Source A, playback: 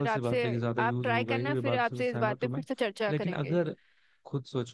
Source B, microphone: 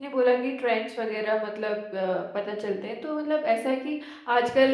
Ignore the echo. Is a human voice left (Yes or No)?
Yes